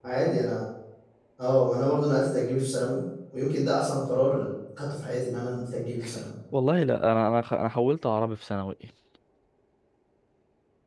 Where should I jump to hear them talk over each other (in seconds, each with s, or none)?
none